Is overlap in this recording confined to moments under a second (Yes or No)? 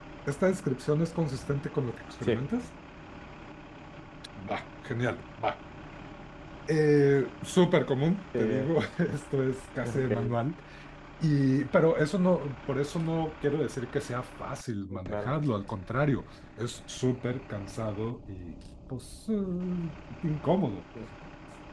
Yes